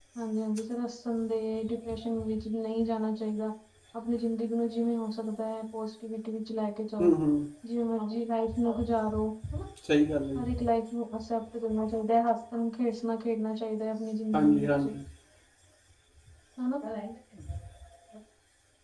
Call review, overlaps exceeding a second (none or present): none